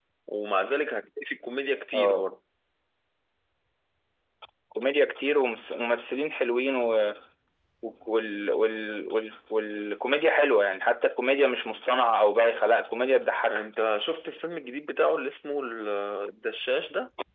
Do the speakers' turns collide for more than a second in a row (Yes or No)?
No